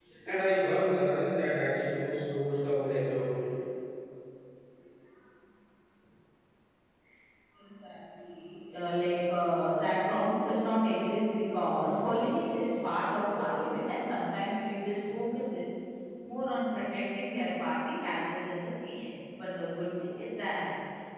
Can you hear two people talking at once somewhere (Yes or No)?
No